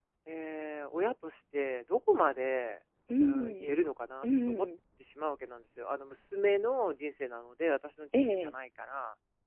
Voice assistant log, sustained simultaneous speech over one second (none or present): none